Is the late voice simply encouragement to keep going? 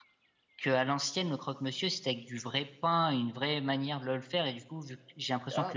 Yes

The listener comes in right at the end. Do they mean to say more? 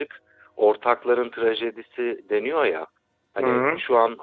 No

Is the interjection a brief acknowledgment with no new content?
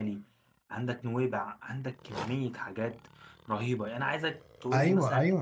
No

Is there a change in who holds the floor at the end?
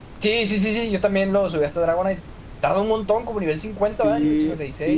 Yes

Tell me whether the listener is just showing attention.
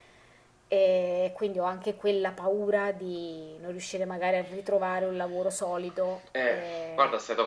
No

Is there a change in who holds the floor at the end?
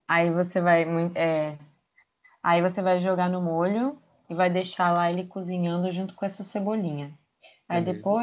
No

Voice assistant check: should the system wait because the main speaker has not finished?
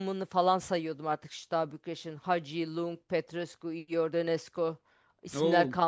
Yes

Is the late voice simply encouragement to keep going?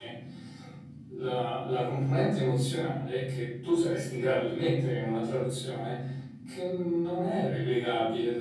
Yes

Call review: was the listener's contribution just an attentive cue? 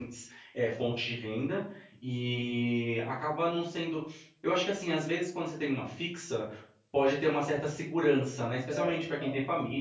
Yes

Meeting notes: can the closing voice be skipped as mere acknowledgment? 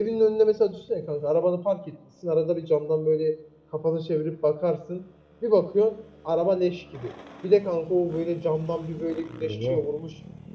Yes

